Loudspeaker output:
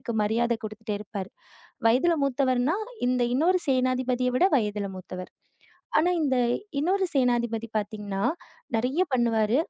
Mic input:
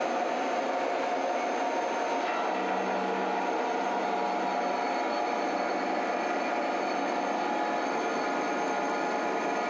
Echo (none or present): none